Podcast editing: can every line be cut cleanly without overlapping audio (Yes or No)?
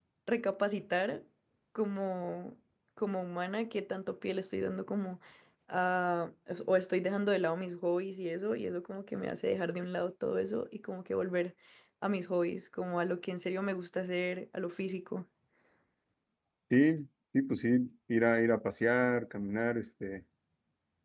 Yes